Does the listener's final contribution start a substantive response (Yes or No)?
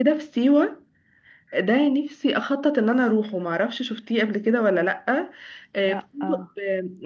No